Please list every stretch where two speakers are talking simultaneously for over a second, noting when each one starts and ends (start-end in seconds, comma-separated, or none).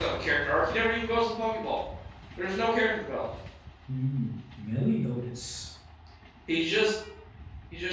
none